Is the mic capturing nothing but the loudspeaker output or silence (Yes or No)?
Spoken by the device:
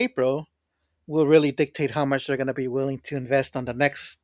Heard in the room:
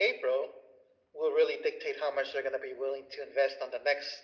Yes